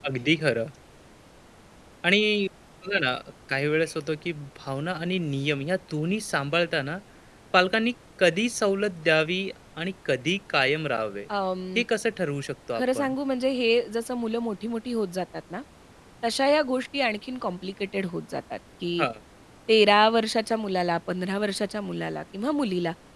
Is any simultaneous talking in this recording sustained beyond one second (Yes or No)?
No